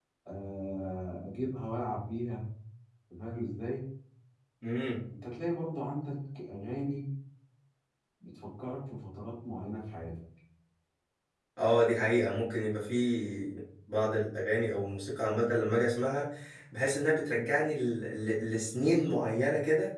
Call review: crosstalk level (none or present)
none